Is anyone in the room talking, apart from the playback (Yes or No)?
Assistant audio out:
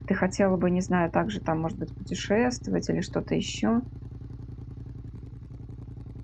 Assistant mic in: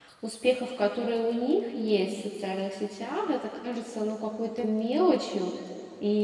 Yes